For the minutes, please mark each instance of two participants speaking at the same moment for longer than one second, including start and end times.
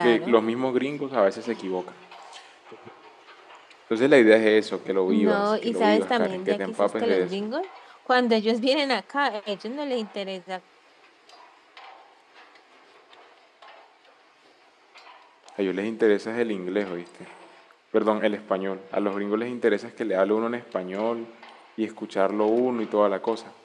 5.1-7.4

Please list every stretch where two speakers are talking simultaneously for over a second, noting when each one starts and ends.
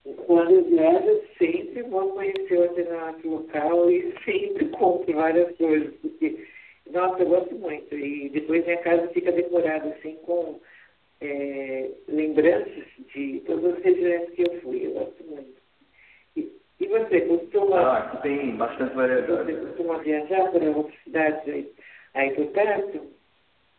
none

